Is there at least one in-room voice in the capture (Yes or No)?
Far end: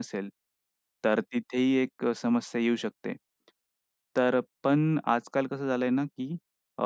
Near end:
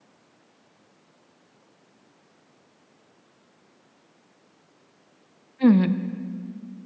Yes